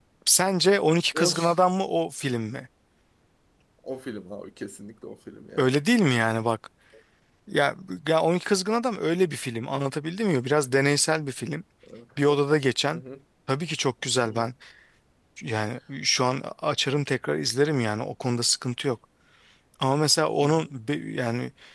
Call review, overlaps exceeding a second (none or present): none